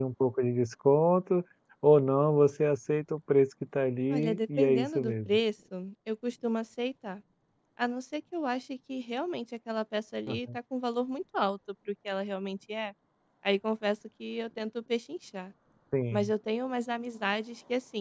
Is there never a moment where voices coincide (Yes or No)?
No